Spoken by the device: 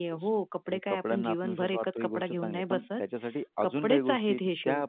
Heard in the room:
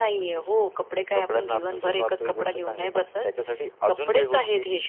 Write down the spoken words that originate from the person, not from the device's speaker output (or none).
none